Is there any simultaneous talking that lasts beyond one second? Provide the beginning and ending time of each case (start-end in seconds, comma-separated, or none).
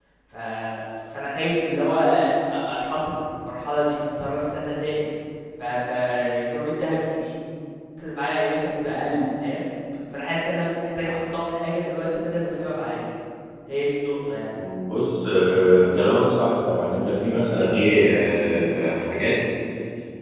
none